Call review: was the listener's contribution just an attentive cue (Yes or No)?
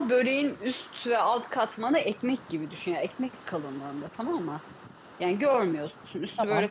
No